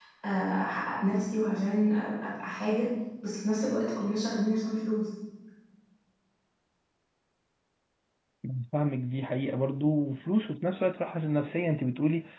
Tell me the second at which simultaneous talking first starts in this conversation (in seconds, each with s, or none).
none